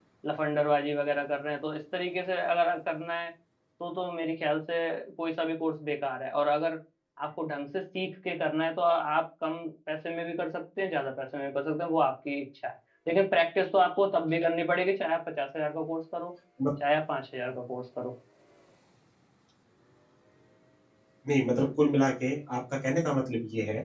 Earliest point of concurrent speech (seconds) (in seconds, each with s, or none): none